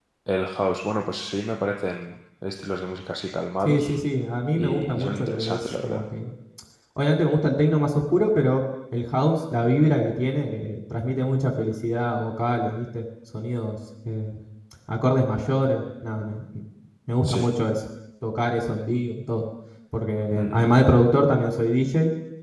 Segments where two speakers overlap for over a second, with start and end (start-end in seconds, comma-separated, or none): 4.6-6.0